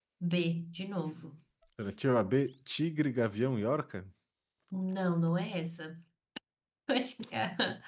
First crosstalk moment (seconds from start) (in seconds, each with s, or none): none